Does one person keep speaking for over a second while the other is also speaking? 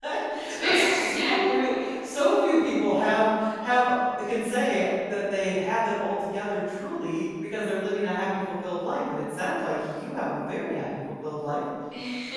Yes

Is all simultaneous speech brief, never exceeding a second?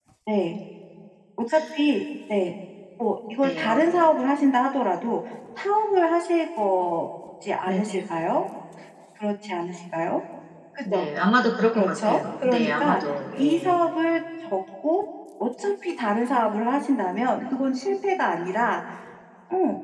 No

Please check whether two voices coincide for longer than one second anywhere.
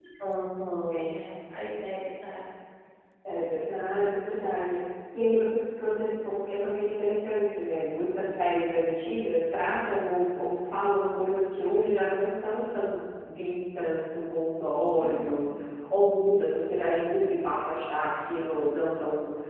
No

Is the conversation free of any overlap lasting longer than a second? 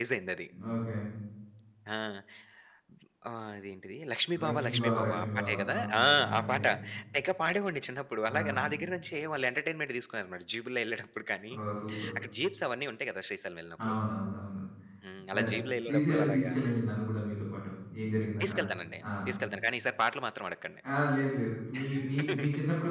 No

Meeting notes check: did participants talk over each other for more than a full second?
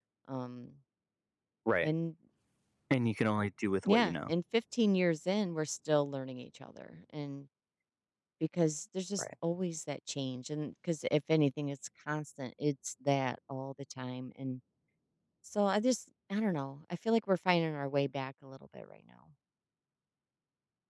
No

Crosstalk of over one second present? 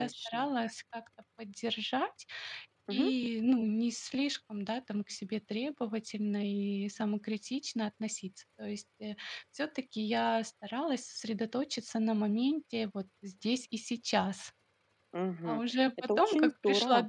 Yes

